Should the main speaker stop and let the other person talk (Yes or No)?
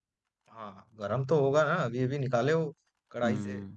Yes